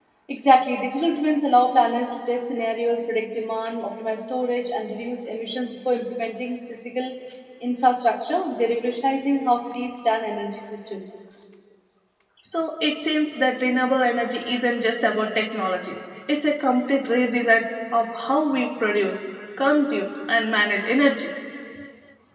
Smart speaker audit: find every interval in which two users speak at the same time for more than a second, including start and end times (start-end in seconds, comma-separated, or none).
none